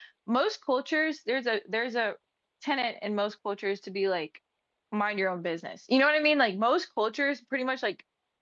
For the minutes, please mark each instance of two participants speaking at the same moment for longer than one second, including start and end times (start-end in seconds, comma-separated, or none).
none